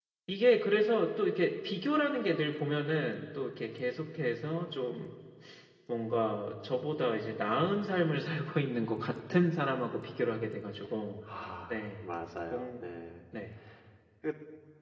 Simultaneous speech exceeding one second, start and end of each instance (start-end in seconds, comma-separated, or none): none